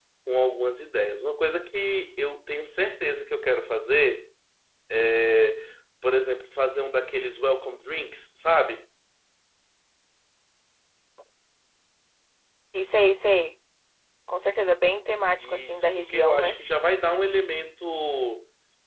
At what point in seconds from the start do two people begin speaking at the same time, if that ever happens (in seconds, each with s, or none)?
15.3 s